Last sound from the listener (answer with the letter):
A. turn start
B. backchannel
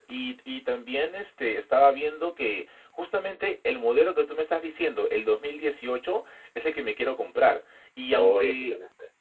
B